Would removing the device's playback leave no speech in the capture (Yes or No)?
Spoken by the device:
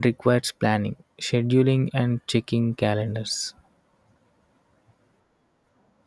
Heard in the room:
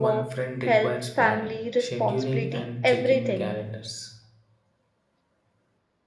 No